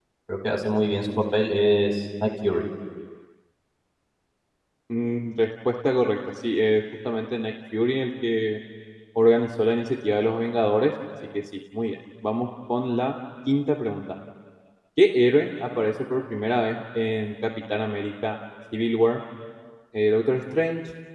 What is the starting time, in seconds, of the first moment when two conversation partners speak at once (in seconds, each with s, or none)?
none